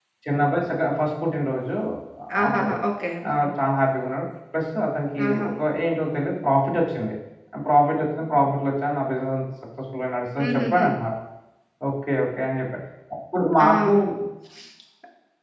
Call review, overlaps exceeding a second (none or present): none